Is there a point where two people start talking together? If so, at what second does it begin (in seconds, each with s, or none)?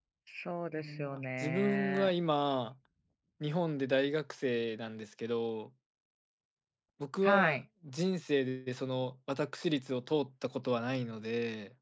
0.8 s